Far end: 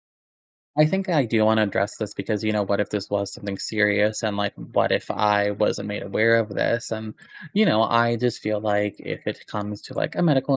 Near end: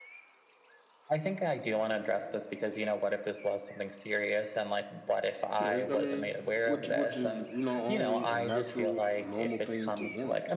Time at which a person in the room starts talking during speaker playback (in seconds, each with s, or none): 5.6 s